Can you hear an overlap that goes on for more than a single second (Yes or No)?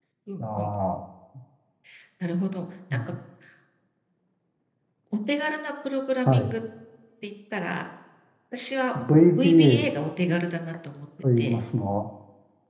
No